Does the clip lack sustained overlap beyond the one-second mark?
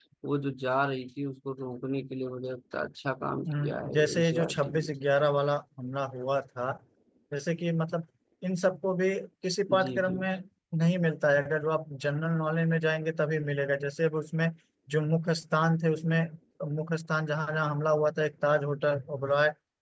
No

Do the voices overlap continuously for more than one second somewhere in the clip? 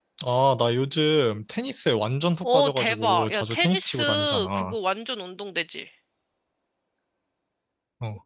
Yes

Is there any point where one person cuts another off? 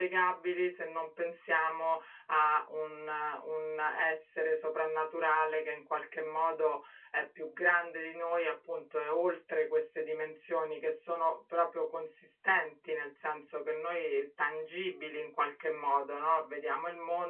No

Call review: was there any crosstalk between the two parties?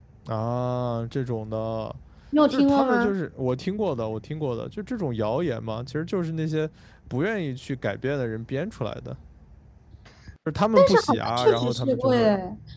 Yes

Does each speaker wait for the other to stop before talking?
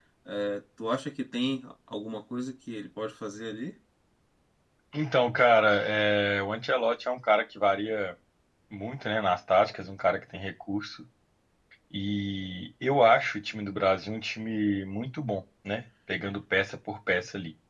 Yes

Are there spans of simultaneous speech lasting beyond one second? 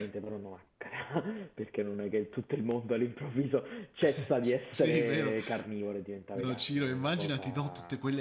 Yes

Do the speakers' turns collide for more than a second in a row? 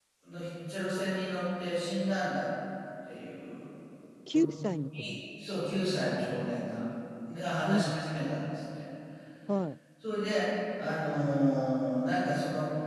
No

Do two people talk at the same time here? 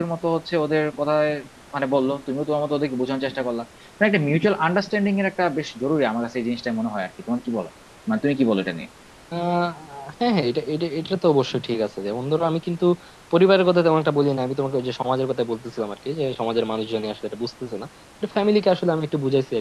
No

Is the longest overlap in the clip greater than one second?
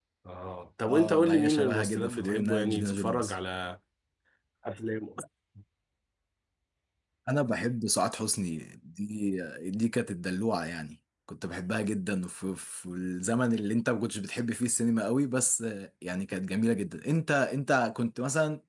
Yes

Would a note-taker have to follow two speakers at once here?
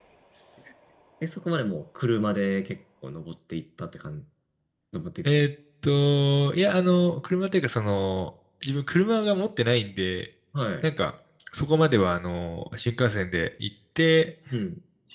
No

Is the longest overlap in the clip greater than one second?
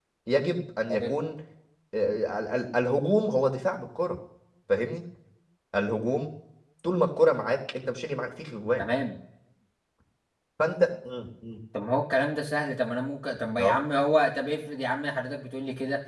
No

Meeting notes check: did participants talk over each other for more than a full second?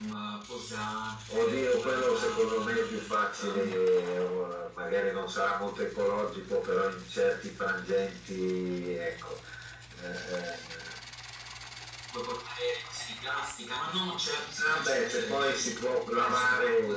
Yes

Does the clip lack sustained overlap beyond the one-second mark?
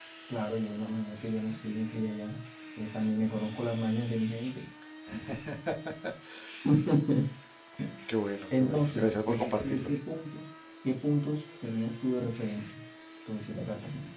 No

